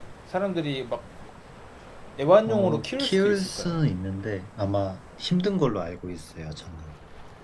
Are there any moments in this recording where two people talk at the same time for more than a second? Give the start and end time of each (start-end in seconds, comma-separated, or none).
2.5-3.8